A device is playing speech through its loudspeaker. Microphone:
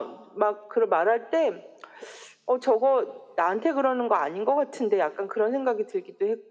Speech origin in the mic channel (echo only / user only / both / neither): echo only